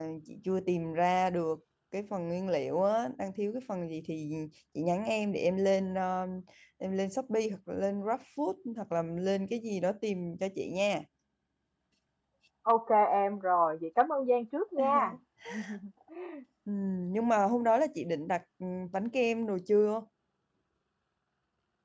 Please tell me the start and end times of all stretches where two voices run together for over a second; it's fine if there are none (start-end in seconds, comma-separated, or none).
none